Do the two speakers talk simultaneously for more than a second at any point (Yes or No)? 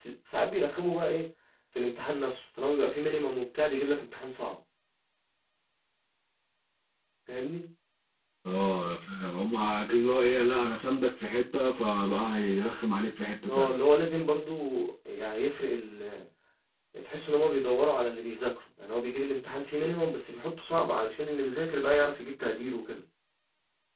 No